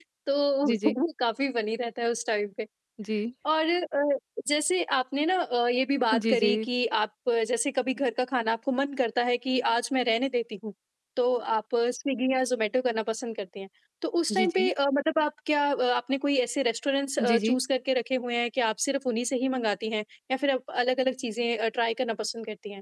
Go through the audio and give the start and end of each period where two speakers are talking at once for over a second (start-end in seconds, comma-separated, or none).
none